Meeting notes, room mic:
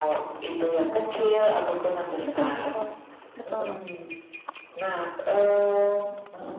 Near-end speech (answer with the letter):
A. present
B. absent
A